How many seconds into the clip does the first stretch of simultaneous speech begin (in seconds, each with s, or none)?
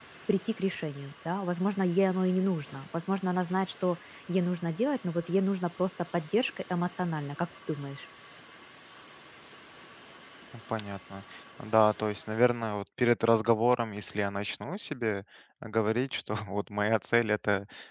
none